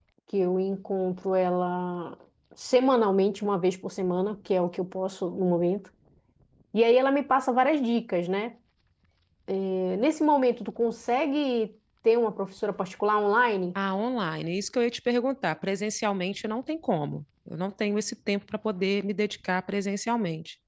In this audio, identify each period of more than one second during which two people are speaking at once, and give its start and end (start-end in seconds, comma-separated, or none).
none